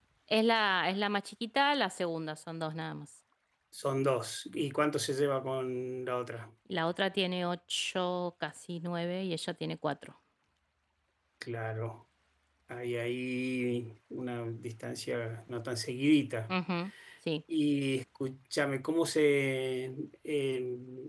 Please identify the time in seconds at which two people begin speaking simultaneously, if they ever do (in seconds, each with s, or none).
none